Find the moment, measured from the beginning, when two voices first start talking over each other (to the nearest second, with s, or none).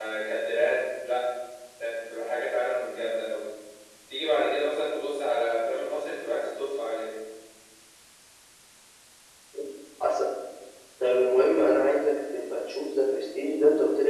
none